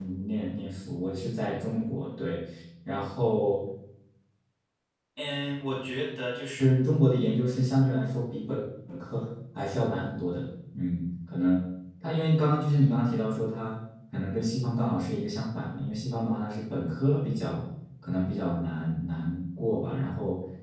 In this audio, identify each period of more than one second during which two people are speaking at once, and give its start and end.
none

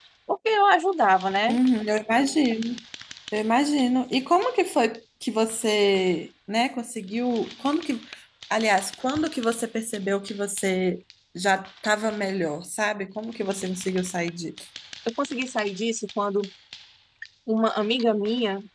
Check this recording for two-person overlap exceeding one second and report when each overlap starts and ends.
none

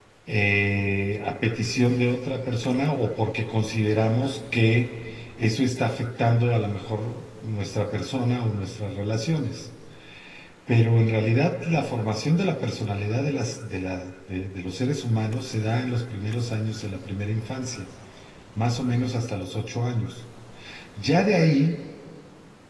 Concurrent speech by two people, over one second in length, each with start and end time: none

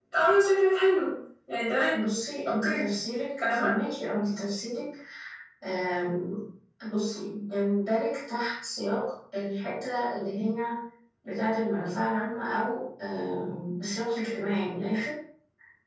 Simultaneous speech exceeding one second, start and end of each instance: none

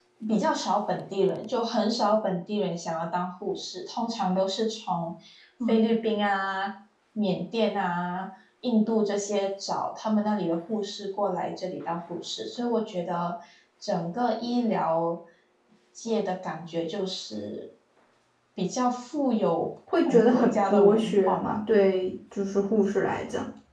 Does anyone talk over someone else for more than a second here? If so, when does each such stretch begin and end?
19.9-21.5

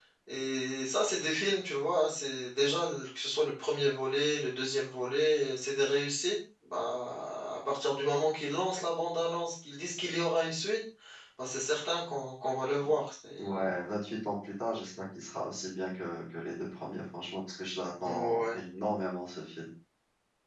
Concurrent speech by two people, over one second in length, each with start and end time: none

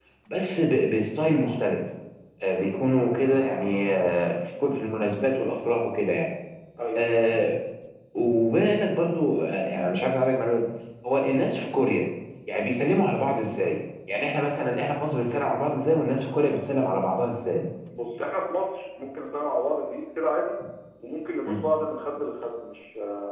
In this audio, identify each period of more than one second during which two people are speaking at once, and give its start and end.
none

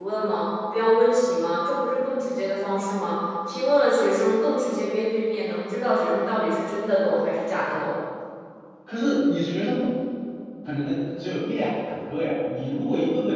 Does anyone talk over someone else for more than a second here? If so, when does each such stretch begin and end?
none

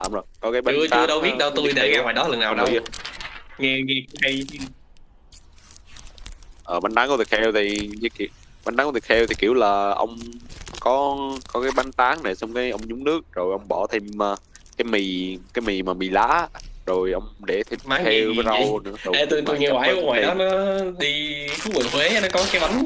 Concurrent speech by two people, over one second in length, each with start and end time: 0.7-2.0, 18.0-20.4

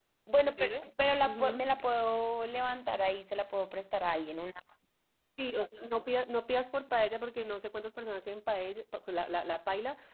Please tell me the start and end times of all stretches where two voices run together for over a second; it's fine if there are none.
none

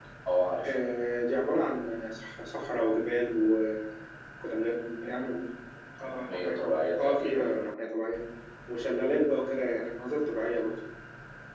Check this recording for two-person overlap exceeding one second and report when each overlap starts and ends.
6.0-7.5

